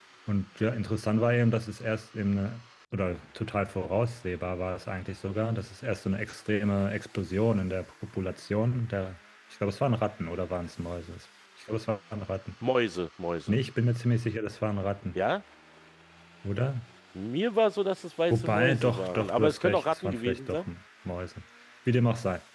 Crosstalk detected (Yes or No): Yes